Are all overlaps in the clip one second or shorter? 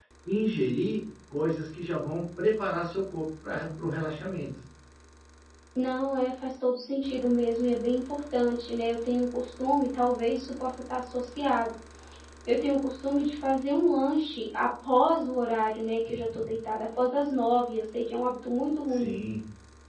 Yes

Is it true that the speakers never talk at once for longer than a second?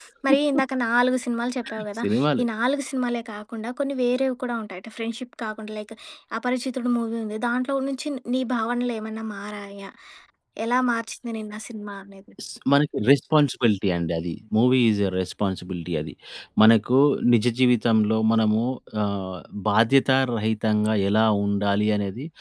Yes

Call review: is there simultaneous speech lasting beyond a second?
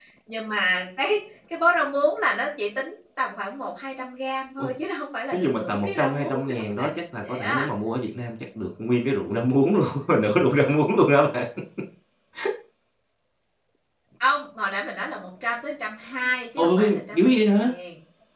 Yes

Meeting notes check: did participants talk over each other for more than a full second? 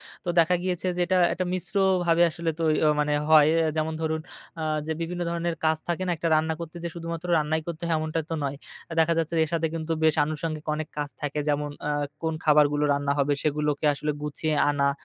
No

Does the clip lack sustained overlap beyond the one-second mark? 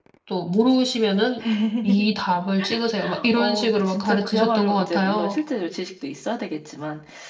No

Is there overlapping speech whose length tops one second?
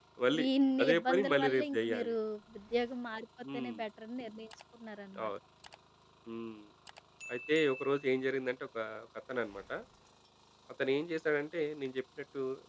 Yes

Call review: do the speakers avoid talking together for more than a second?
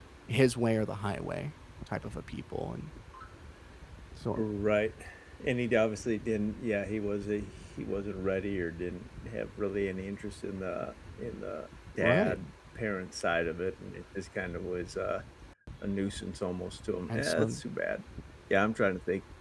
Yes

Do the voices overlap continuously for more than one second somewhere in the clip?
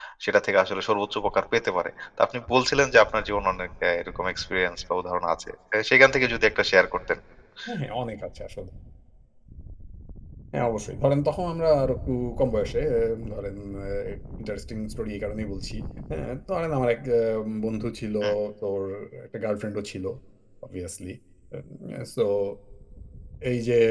No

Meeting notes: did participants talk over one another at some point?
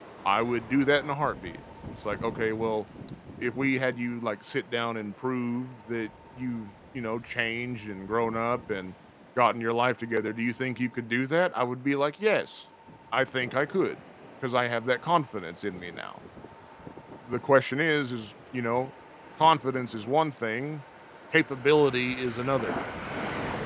No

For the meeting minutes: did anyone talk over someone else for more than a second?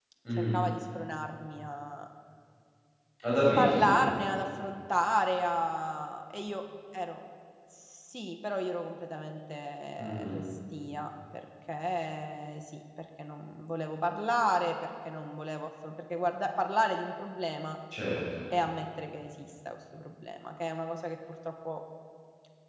No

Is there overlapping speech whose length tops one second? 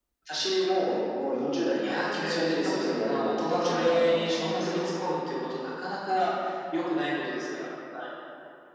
Yes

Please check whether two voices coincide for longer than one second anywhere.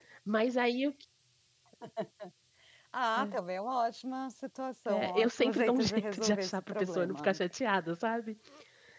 Yes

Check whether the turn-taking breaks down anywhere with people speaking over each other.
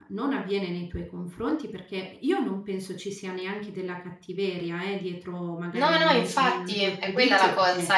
Yes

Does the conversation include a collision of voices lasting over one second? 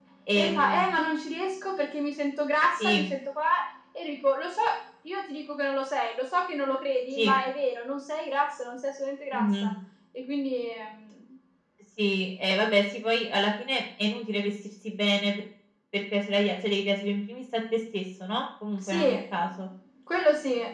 No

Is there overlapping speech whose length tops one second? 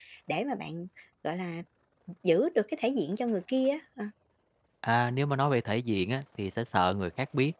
No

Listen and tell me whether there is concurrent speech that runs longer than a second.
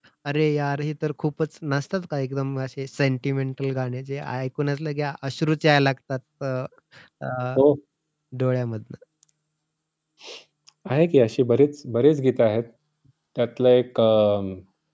No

